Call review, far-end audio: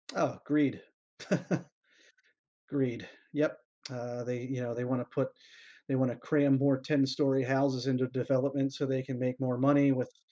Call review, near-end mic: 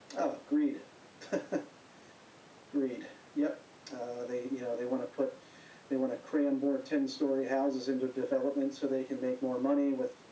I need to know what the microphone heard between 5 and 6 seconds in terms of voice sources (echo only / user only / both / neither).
echo only